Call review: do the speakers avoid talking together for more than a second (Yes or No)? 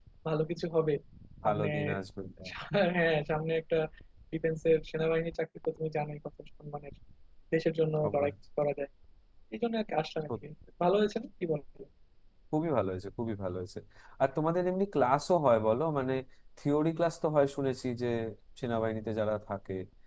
Yes